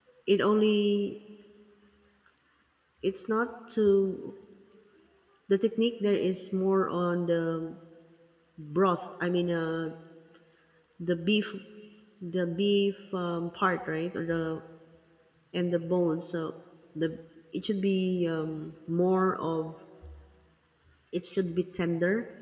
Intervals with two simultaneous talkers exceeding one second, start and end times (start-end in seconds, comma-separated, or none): none